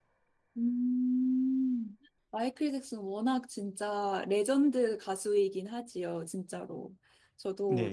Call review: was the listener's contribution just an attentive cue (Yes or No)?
No